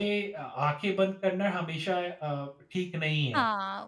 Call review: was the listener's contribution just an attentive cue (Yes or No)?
No